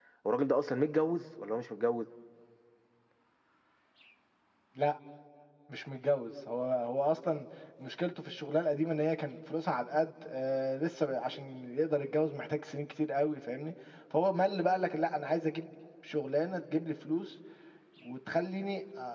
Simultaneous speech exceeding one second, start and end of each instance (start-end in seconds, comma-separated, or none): none